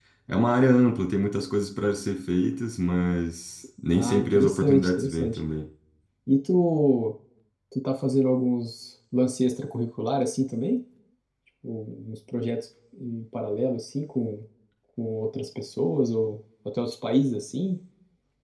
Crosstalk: present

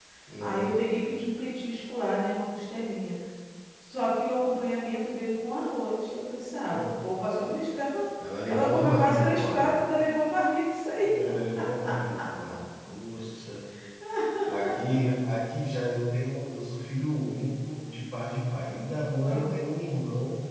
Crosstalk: present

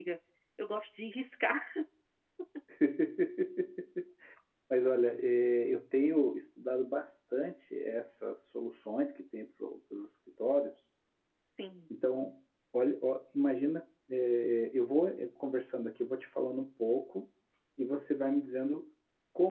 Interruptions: none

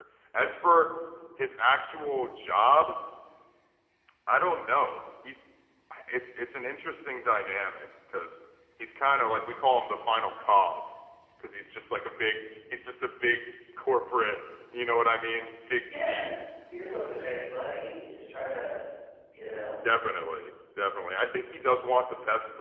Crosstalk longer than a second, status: none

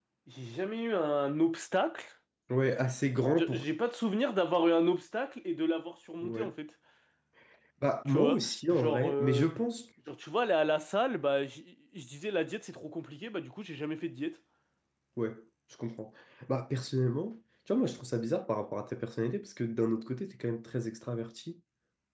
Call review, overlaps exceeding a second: present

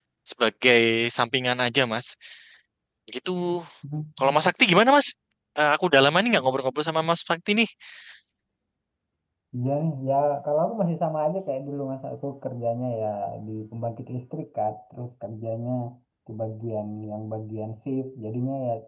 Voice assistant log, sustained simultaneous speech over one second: none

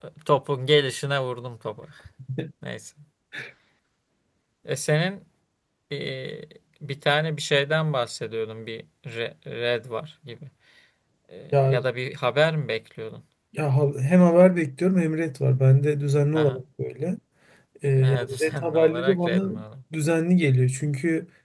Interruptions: present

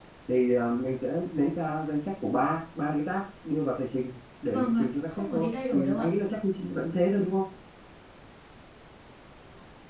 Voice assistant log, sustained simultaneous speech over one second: present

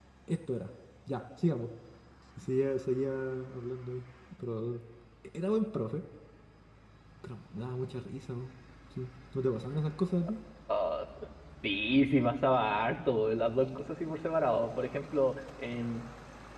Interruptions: none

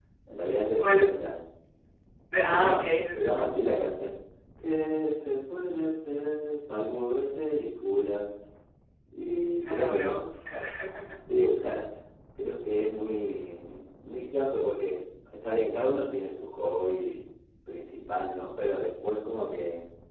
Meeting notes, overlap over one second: present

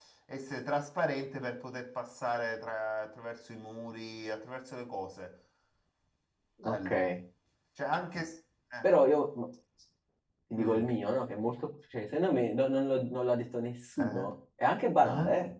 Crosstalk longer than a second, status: none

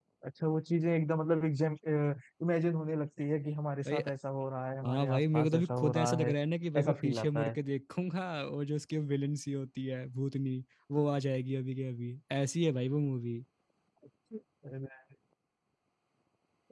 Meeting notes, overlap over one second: present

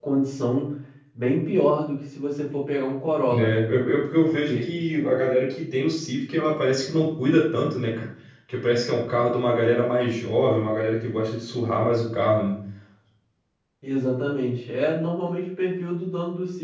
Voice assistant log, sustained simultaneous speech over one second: none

